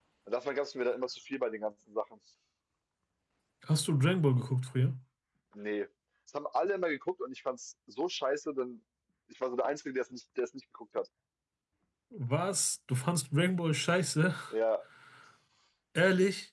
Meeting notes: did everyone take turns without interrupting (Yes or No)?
Yes